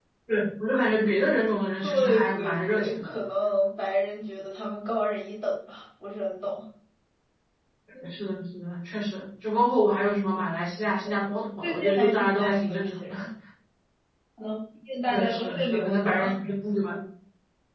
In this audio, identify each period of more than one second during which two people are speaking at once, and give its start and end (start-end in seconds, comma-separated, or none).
1.8-3.1, 11.6-13.2, 15.1-16.4